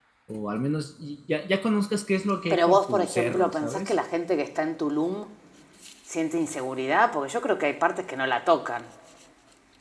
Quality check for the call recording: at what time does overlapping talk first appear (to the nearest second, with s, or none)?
2 s